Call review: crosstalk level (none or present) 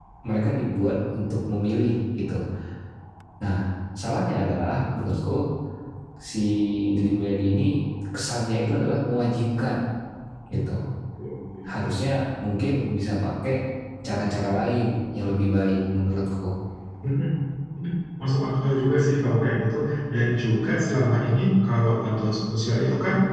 none